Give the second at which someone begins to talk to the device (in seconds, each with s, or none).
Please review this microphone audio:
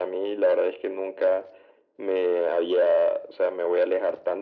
none